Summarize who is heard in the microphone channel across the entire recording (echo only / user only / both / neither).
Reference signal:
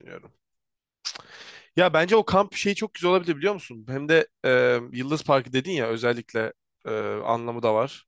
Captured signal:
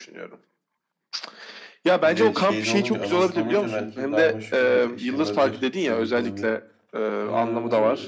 both